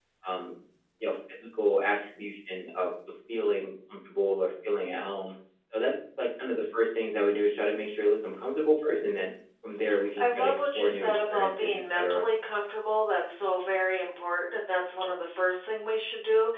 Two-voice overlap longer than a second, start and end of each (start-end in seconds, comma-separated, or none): 10.2-12.3